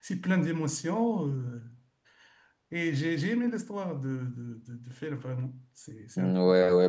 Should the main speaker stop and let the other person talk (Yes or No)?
Yes